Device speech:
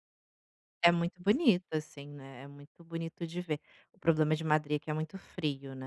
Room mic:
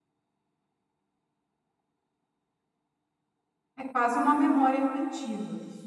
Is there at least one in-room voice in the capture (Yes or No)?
Yes